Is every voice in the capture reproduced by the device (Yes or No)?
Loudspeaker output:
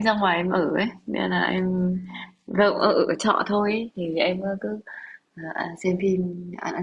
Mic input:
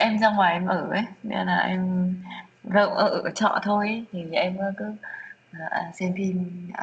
Yes